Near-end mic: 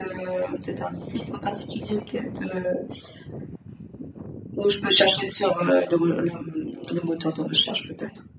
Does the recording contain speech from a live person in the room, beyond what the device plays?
No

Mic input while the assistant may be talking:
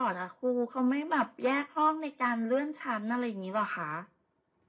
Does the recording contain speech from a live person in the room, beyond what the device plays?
No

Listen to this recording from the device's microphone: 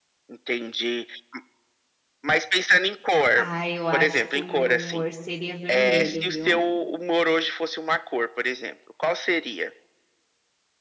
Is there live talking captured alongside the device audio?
Yes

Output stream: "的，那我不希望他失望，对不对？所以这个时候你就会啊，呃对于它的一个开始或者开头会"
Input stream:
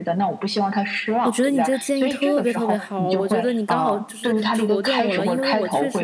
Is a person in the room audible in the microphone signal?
Yes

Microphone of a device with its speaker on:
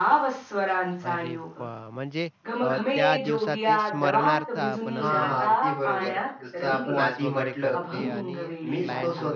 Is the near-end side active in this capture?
Yes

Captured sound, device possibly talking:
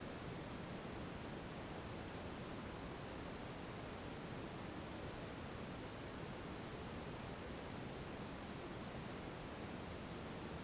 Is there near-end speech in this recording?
No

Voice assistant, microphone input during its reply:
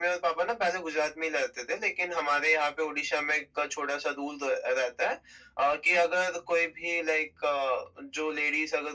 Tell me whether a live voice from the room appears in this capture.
No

